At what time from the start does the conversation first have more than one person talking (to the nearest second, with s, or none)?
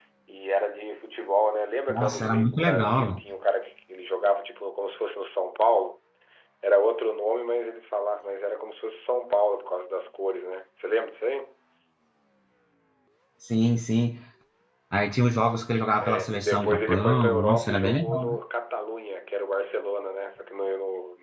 2 s